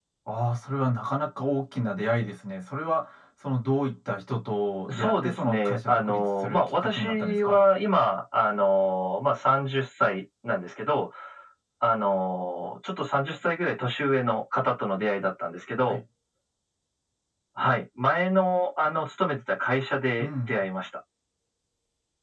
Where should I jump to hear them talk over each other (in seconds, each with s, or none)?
4.9 s